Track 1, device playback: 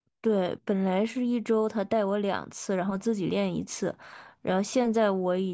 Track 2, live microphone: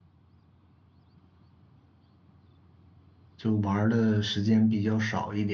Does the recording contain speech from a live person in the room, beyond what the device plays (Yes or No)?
Yes